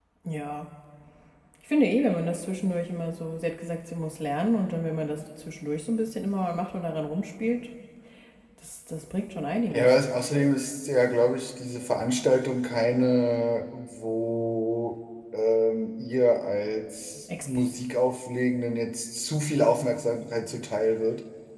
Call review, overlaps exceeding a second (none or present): none